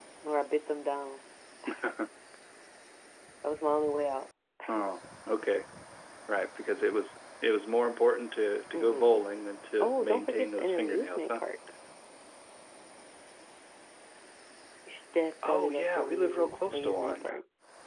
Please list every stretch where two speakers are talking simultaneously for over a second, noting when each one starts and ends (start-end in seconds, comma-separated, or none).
9.8-11.4, 15.5-17.3